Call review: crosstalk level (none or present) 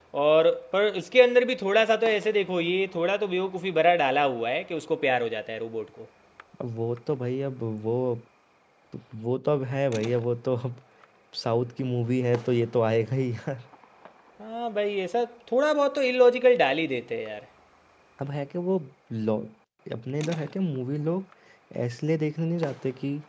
none